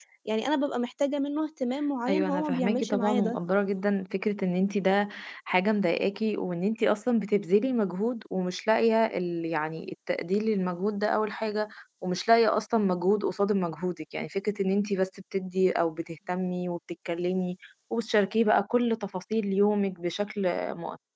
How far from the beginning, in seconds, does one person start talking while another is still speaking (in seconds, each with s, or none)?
2.1 s